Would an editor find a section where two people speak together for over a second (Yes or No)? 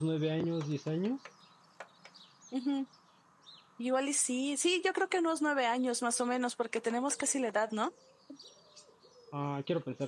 No